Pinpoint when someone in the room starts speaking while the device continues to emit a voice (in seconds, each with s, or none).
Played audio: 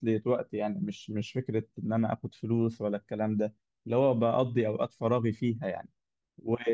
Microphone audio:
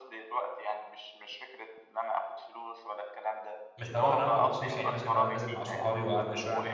3.8 s